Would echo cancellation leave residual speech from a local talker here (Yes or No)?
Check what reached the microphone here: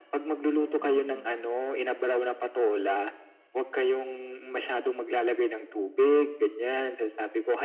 Yes